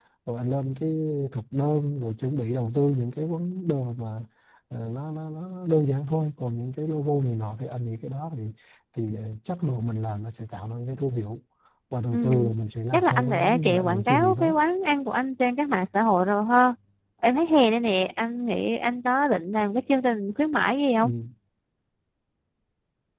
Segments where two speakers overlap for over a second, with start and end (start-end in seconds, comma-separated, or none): 12.9-14.6